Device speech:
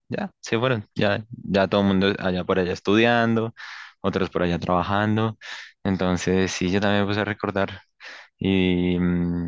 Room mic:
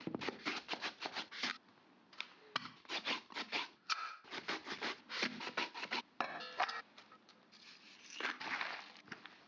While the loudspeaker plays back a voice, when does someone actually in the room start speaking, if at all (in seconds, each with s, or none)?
none